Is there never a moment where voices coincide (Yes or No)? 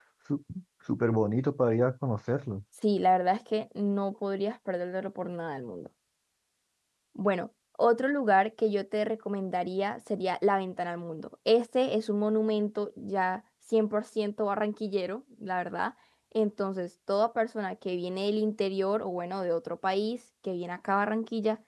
Yes